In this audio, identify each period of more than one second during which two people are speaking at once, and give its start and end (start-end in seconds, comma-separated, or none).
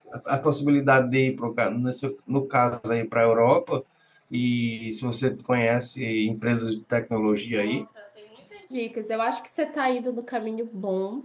none